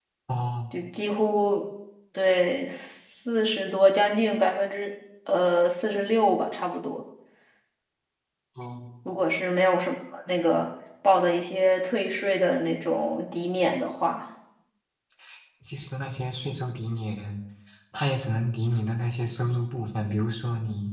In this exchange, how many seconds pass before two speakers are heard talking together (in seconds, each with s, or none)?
none